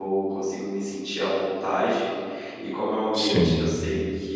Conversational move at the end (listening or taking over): listening